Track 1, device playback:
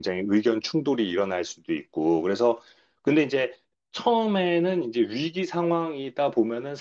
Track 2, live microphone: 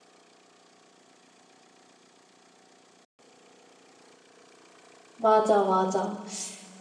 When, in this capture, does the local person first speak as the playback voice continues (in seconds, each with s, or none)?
5.2 s